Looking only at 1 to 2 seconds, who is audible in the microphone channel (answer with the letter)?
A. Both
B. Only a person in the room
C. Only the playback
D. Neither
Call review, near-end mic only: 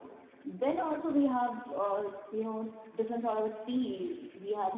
C